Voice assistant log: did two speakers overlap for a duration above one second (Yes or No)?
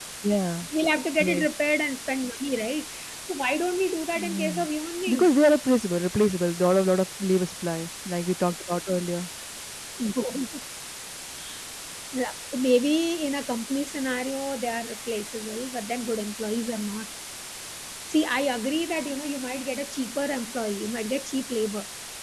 No